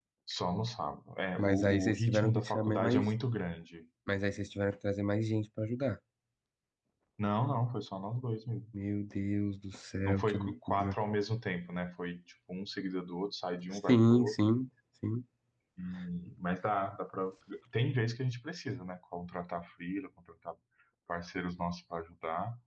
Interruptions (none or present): present